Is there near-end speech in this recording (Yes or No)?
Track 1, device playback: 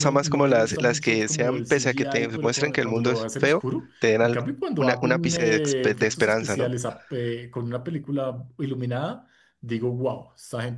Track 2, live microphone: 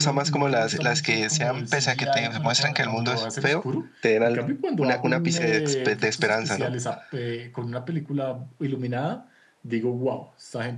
No